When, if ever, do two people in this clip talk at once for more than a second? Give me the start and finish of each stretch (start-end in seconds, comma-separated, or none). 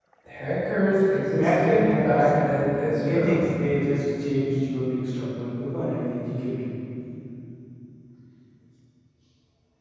1.3-2.6